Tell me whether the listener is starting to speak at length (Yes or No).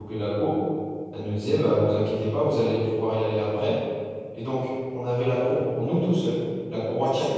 No